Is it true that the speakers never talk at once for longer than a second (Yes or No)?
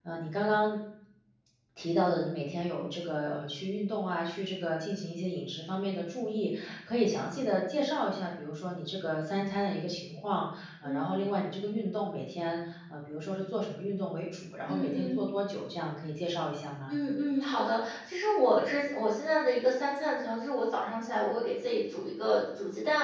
Yes